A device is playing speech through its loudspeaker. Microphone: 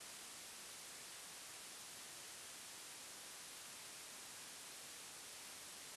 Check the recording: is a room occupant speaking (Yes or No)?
No